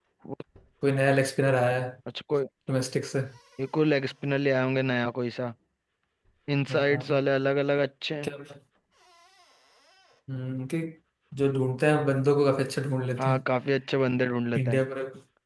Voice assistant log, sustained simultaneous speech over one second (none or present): none